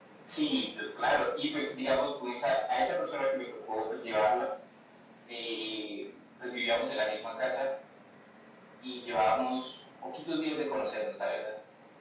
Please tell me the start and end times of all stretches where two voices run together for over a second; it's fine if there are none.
none

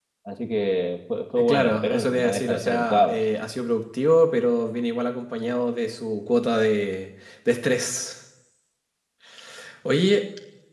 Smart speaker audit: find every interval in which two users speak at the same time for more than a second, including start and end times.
1.4-3.2

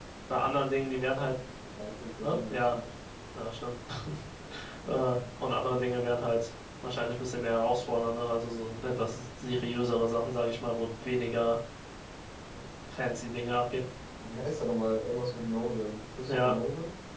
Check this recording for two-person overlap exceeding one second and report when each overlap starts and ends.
none

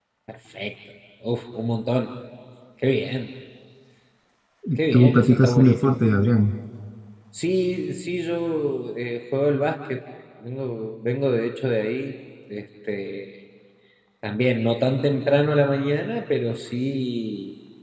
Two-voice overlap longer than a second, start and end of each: 4.8-6.0

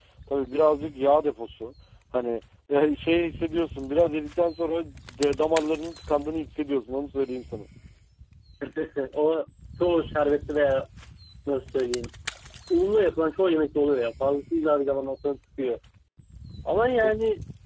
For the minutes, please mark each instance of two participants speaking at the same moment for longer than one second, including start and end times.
none

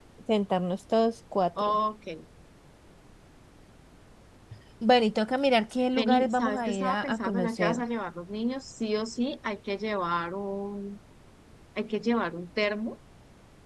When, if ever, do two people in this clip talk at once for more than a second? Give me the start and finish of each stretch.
5.9-7.8

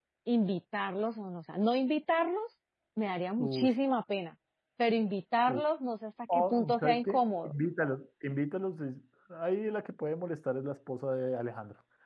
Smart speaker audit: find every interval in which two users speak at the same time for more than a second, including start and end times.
6.3-7.5

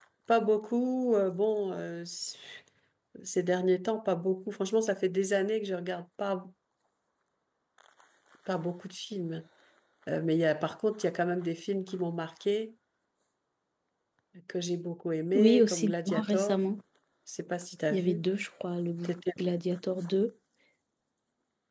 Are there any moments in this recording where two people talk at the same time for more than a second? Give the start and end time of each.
15.3-16.6

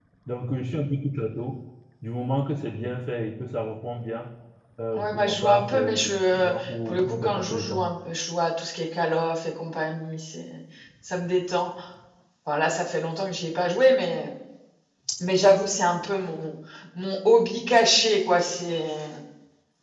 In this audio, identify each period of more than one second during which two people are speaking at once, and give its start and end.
5.0-7.9

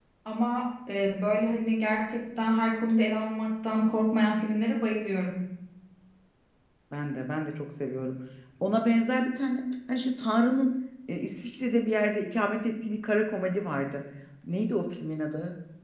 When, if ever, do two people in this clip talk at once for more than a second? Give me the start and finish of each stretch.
none

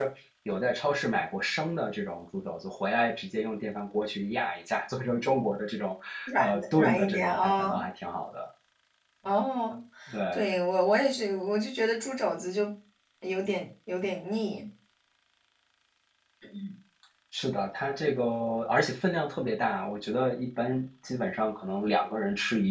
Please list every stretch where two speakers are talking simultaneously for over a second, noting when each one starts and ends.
6.4-7.8

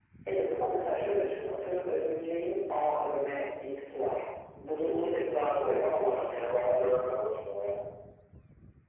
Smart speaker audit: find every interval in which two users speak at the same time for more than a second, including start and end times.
4.8-6.6

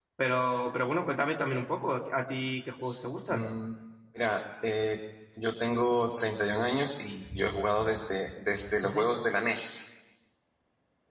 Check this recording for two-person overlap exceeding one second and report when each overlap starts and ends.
none

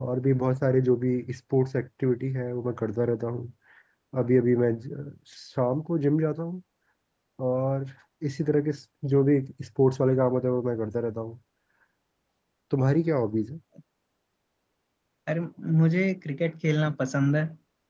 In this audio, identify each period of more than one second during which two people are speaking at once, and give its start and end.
none

